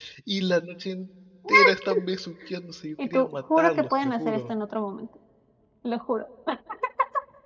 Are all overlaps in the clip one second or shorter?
No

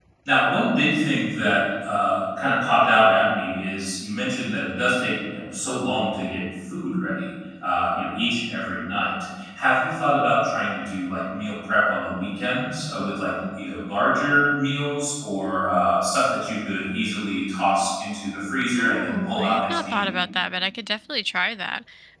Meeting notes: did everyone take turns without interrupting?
No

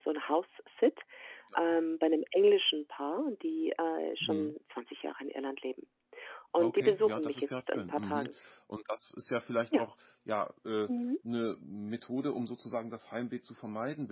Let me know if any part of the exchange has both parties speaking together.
Yes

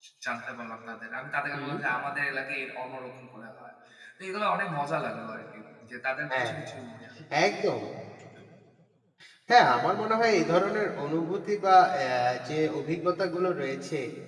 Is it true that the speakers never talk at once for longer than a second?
Yes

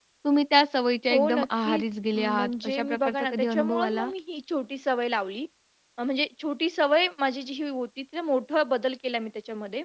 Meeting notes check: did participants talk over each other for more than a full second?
Yes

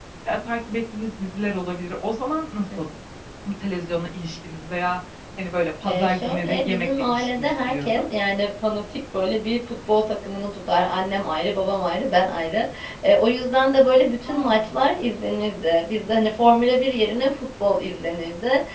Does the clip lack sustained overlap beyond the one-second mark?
No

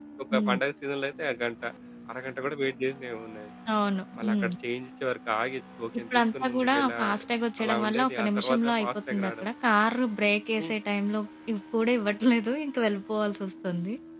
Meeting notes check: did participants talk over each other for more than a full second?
Yes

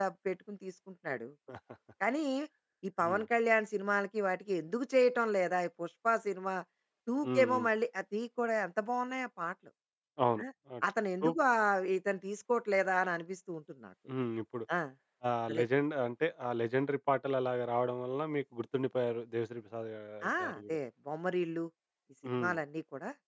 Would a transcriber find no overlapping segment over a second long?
Yes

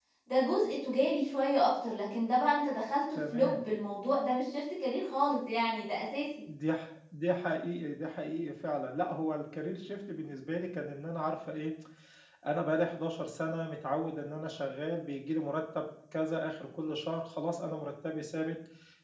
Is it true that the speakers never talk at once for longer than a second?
Yes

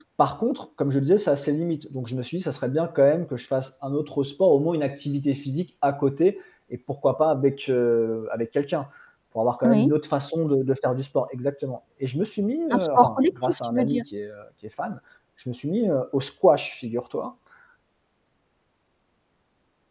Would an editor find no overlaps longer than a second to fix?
No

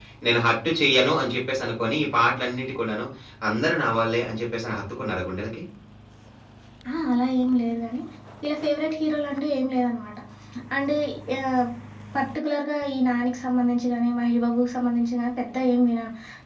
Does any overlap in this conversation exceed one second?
No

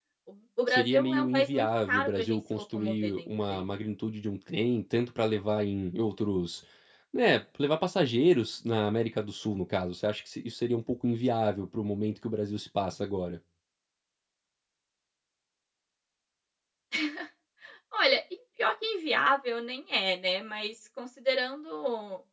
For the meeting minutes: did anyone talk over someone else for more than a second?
Yes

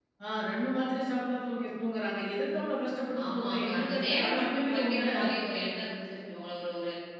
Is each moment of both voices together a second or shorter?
No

